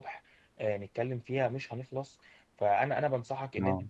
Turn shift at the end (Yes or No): No